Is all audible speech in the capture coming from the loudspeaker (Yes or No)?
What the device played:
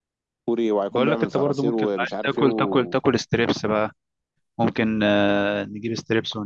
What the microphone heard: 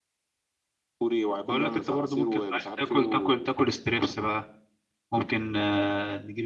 Yes